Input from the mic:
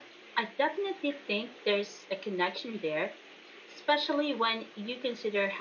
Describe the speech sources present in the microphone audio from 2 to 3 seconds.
echo only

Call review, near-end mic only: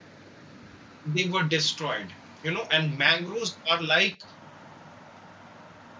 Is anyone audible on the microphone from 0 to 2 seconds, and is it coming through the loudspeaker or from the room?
user only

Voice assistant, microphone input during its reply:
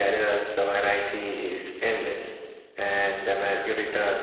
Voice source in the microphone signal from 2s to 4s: echo only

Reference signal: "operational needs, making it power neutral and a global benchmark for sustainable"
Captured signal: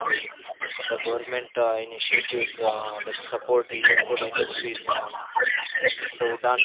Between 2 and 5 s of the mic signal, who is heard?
both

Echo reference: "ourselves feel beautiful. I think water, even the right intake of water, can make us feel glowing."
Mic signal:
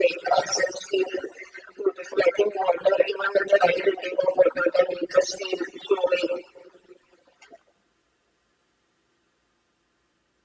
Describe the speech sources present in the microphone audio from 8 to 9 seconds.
neither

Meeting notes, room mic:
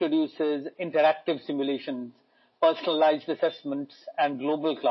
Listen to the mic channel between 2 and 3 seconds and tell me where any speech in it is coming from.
echo only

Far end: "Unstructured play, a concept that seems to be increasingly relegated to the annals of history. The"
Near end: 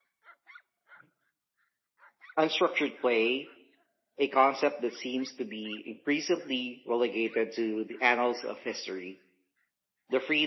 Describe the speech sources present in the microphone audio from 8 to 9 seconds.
echo only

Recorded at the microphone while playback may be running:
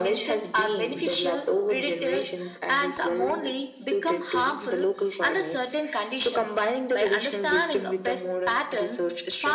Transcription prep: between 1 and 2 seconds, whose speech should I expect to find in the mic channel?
echo only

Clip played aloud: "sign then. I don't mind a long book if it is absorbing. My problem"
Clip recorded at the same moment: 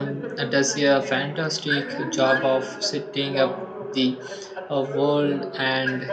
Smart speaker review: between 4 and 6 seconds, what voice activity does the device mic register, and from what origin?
both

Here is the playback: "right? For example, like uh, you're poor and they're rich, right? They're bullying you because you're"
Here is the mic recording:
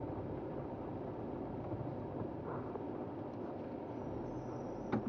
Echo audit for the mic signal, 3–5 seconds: neither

